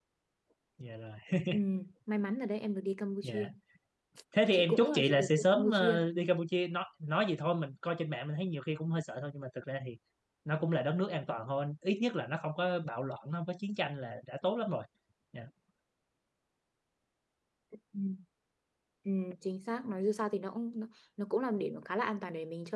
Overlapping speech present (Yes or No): Yes